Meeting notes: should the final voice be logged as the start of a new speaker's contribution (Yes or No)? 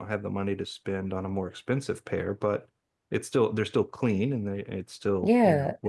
Yes